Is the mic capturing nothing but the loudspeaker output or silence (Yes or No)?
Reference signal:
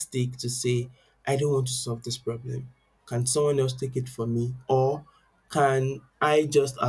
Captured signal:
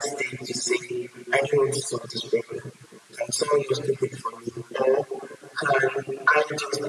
Yes